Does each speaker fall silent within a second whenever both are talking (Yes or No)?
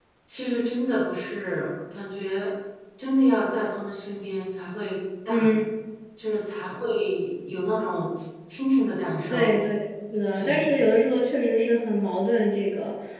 Yes